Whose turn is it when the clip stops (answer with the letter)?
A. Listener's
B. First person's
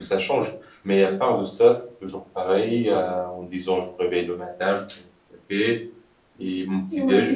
B